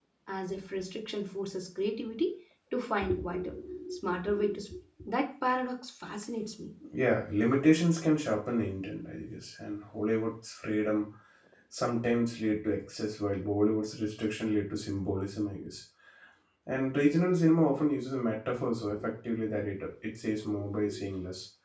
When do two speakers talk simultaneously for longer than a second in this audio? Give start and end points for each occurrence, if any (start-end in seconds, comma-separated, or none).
none